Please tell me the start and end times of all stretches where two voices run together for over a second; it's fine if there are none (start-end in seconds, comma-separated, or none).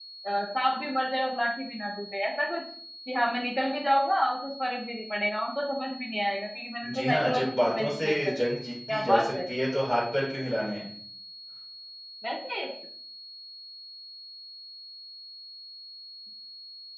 6.9-8.4